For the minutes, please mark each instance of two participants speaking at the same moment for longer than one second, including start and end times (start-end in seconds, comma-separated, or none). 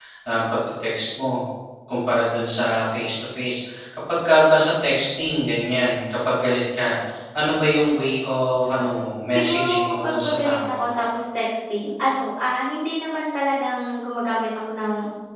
8.7-10.7